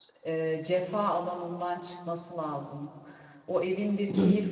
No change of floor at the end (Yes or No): Yes